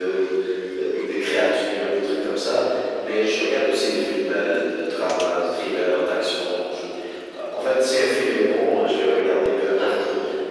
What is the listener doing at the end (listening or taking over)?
listening